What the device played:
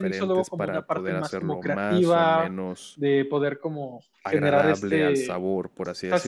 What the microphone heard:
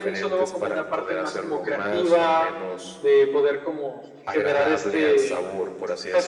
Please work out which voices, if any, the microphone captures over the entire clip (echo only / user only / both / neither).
echo only